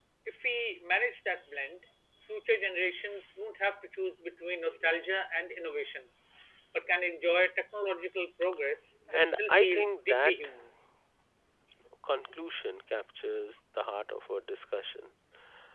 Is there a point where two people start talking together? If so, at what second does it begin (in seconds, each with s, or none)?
9.1 s